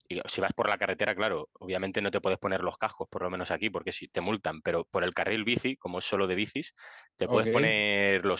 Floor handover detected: No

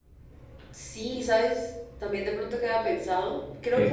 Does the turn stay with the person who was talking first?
Yes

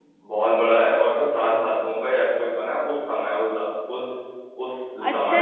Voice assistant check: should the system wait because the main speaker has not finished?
No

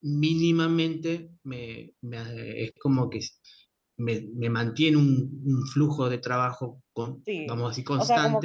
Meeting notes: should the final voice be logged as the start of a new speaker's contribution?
Yes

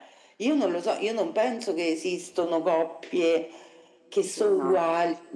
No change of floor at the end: Yes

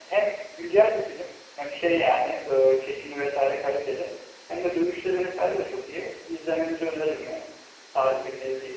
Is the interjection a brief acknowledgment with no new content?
No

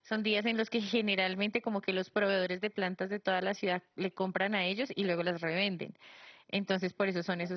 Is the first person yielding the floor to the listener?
No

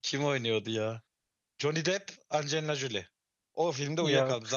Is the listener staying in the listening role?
Yes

